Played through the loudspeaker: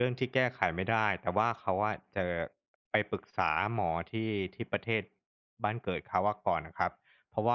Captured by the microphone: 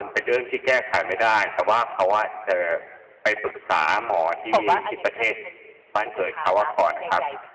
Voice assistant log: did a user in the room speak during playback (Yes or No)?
Yes